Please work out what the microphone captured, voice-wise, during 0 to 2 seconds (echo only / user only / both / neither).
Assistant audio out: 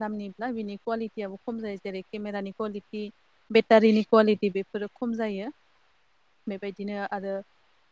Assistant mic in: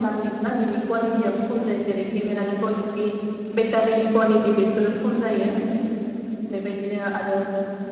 echo only